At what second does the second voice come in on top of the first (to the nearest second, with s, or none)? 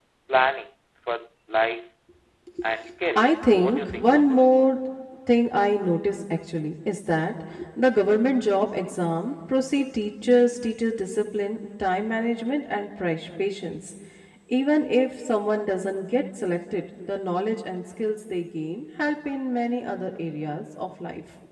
3 s